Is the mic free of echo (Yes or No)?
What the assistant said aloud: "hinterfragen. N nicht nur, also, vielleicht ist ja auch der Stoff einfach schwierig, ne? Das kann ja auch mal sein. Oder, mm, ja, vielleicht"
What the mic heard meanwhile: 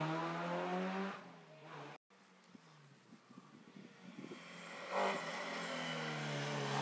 Yes